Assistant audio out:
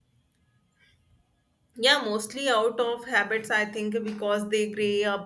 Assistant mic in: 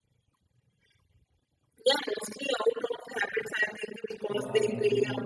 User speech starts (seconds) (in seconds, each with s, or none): 4.2 s